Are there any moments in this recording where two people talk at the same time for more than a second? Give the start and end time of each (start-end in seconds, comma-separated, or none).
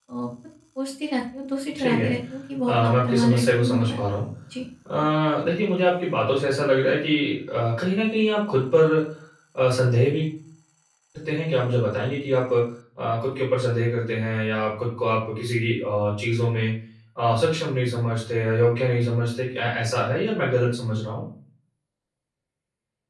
2.7-4.0